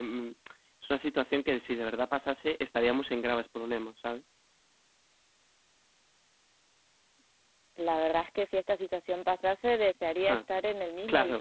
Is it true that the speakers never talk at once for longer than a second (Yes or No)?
Yes